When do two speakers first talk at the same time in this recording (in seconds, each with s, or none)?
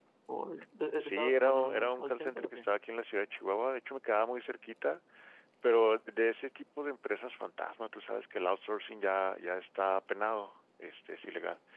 1.0 s